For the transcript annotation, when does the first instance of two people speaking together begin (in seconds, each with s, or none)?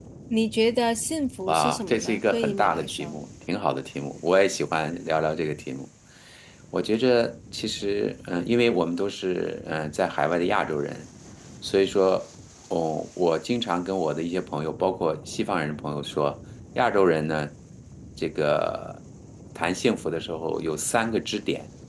1.5 s